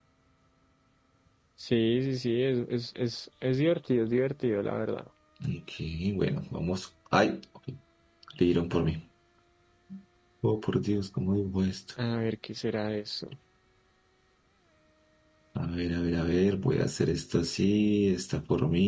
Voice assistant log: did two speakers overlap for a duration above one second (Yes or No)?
No